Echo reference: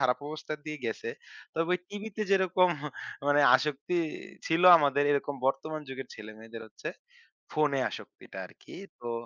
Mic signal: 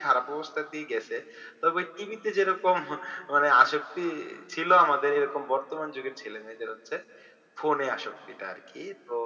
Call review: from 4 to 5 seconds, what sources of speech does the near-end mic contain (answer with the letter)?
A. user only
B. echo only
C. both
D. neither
B